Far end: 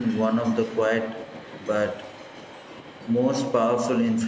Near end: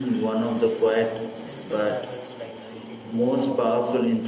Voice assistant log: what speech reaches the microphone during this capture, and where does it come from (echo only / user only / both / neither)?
both